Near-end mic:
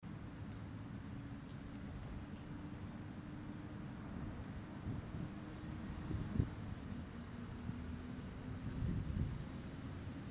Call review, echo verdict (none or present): none